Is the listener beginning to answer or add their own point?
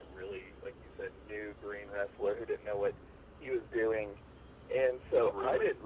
No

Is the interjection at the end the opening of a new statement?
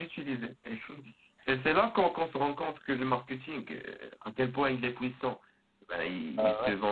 No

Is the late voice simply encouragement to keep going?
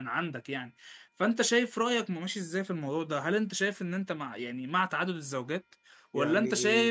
Yes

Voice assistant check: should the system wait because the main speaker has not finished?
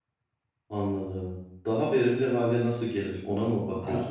No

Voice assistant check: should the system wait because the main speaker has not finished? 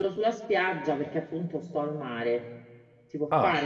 Yes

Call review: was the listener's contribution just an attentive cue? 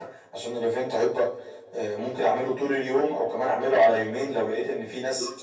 No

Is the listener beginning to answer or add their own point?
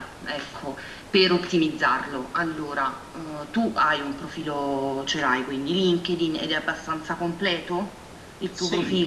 Yes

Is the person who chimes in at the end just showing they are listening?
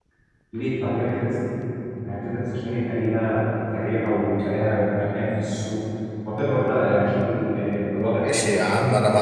No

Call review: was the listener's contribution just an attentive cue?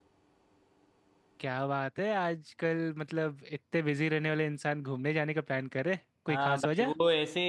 No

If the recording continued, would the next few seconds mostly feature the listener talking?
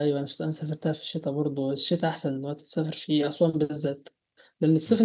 No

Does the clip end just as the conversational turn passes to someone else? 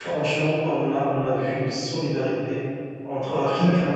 No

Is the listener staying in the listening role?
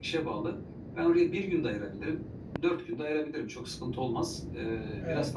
No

